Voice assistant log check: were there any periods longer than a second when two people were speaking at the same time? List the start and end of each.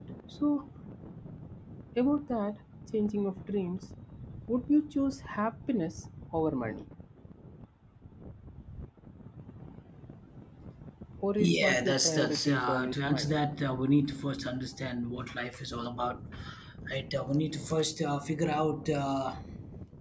11.4-13.3

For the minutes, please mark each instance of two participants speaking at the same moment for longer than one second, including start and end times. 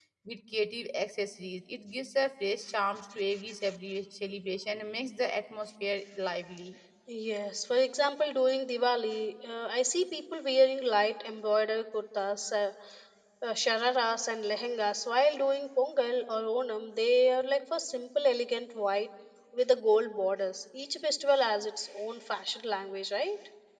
none

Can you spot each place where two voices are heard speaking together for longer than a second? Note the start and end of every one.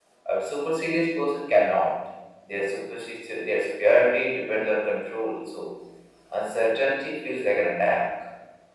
none

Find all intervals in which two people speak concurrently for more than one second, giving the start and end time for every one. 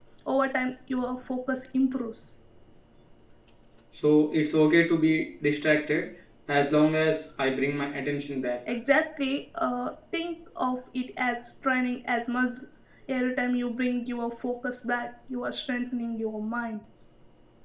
none

